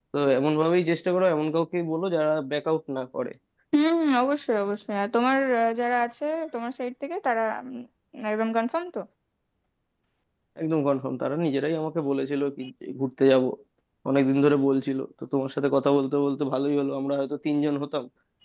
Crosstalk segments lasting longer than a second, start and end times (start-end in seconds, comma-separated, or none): none